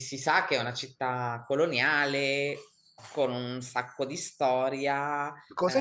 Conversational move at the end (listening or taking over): taking over